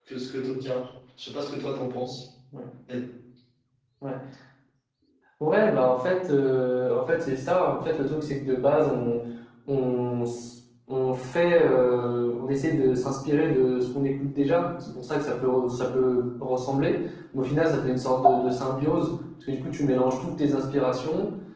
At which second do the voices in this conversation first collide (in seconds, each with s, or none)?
none